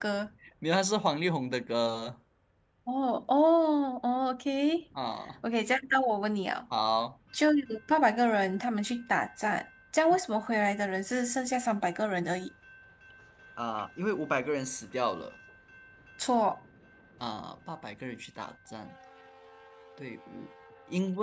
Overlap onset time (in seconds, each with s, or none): none